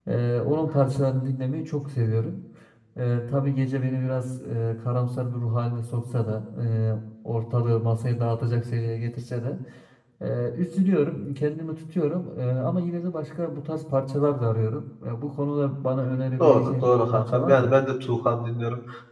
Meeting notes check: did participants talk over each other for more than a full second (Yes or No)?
Yes